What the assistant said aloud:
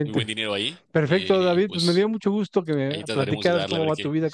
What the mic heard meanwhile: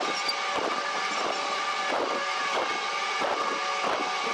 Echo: none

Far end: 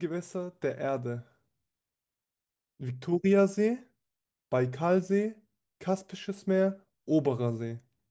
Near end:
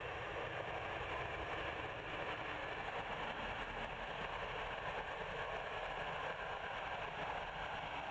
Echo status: none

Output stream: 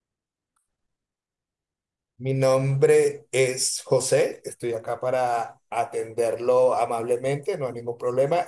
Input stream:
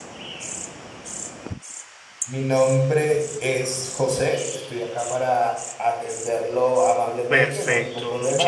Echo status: present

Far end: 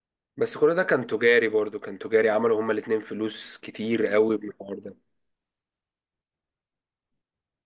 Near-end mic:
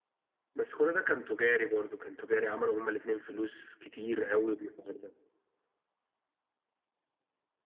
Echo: present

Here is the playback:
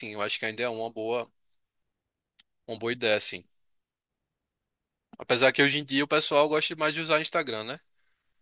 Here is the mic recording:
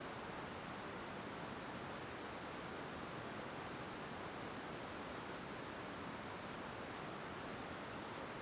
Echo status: none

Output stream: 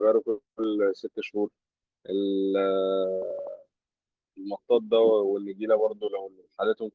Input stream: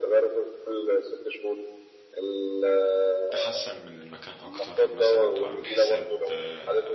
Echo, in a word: present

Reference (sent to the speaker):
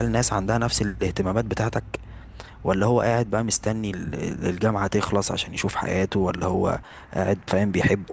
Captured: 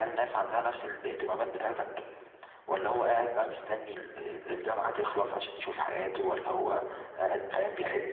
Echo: present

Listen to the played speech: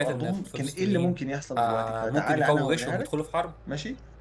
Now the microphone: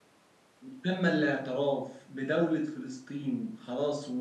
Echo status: none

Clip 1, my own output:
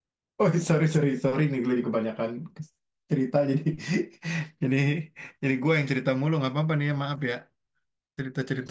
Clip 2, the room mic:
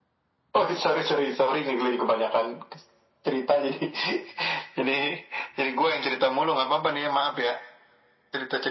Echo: present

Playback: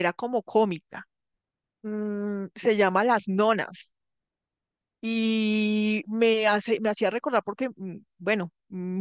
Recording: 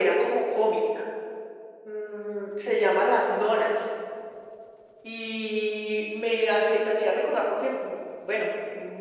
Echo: present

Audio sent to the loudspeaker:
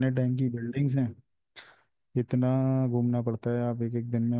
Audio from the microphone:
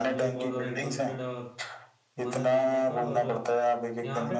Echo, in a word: present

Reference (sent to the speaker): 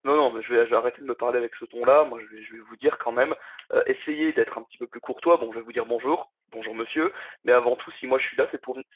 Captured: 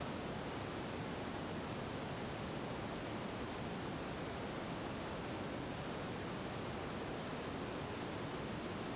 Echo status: none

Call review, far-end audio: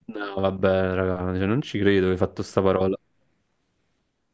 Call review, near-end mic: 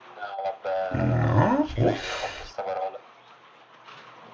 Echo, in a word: present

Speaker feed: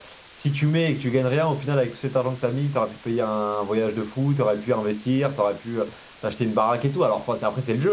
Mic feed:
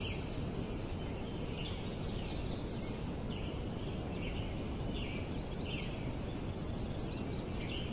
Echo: none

